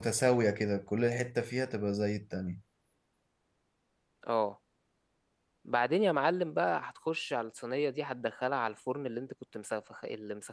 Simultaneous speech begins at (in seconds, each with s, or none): none